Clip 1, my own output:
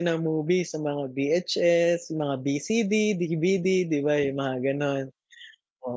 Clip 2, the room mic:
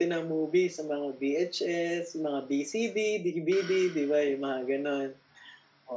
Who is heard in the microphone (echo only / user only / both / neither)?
echo only